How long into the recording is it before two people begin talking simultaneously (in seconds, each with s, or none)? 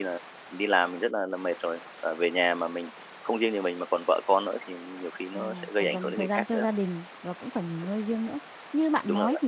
5.3 s